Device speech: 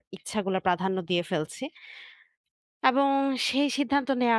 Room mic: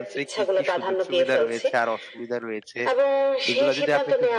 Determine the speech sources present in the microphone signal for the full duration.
both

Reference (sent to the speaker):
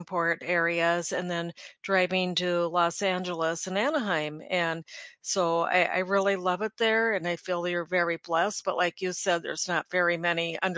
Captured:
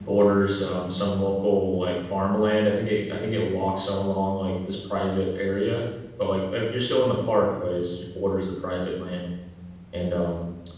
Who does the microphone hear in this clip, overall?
user only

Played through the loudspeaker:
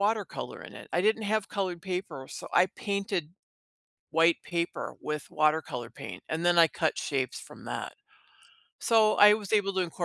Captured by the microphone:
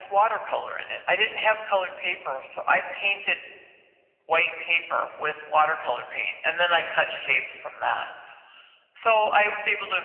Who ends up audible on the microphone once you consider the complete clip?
echo only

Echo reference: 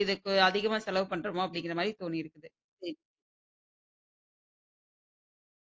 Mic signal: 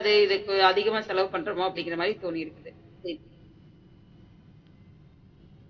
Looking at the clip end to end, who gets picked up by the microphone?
echo only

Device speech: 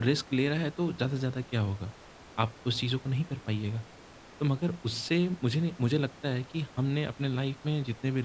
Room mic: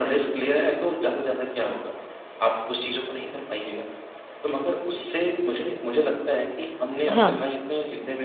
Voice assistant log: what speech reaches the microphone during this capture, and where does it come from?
both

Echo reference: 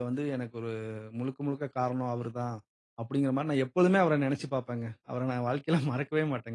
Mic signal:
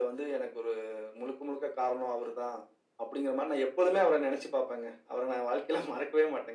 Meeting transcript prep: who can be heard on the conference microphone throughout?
echo only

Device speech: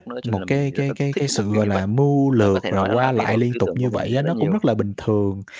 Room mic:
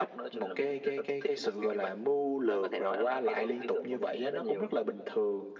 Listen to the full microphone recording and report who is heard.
echo only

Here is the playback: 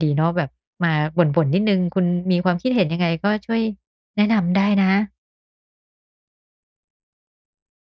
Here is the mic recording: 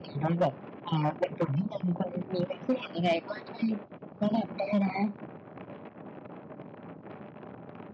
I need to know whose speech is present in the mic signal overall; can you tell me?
echo only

